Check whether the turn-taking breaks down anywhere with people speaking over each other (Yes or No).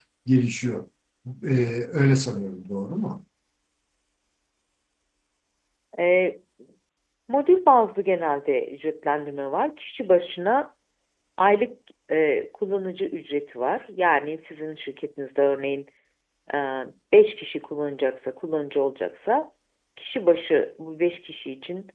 No